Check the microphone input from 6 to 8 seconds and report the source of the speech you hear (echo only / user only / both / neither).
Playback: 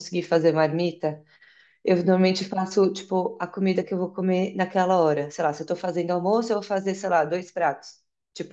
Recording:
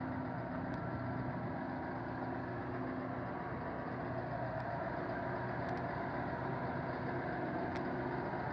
neither